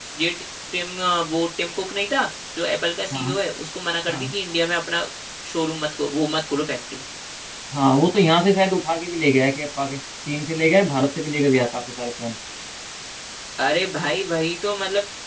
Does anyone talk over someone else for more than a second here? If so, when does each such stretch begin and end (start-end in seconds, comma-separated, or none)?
none